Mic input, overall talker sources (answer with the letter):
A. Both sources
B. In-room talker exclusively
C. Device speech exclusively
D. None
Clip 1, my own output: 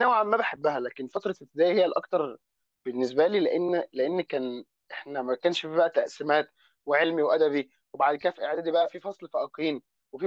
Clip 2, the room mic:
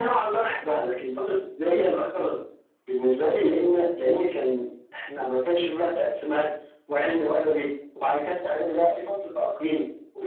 C